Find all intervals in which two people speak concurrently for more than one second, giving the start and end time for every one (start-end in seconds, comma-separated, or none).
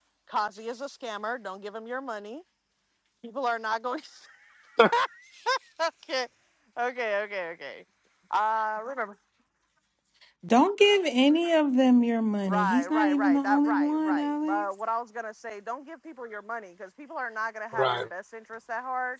12.4-14.6